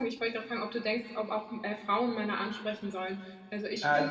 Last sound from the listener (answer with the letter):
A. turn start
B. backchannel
A